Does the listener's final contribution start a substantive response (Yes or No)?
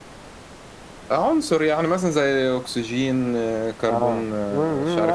Yes